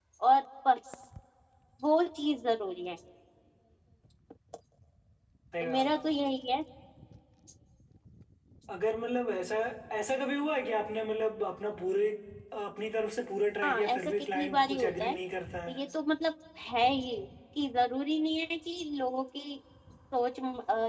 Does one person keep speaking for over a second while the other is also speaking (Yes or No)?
Yes